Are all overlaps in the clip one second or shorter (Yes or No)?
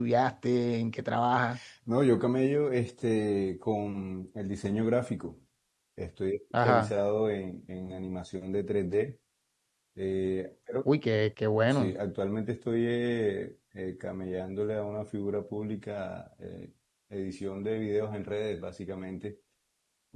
Yes